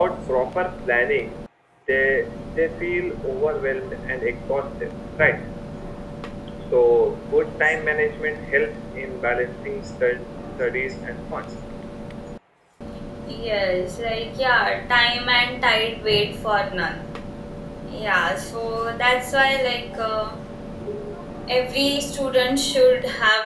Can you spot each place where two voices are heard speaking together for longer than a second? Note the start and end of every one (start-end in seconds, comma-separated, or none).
none